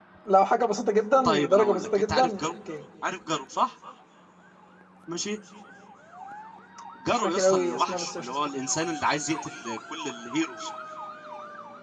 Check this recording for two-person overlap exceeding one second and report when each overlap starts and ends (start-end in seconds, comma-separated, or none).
1.2-2.5, 7.0-8.3